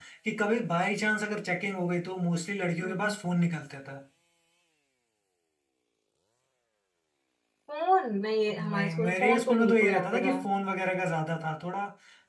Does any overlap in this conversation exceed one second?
Yes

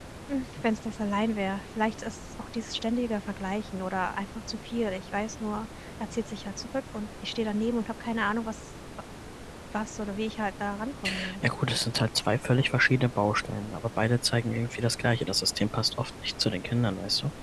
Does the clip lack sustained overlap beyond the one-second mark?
Yes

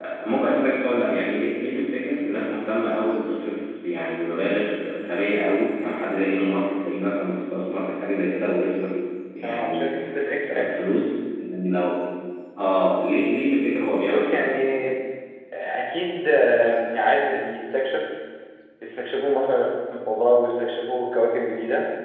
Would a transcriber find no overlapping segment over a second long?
Yes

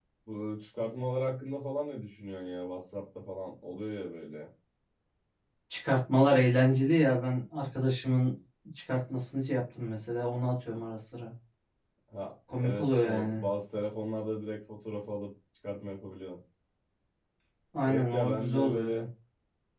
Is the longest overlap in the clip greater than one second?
Yes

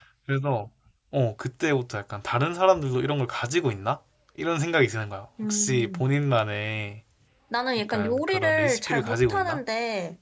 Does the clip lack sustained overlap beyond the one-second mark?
No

